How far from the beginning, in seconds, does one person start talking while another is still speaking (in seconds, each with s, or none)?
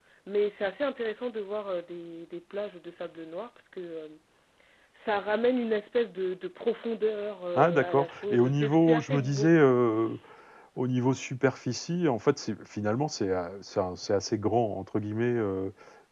7.5 s